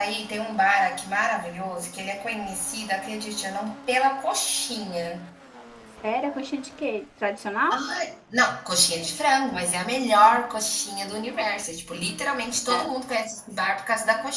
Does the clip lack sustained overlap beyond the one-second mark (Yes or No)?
Yes